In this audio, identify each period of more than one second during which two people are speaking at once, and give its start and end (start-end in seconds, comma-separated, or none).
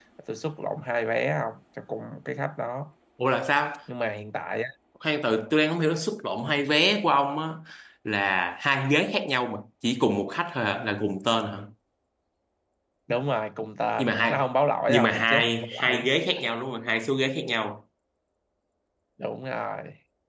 14.9-16.1